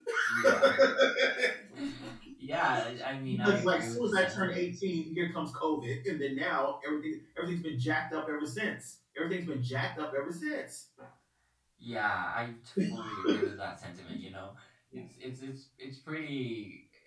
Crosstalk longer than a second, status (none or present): present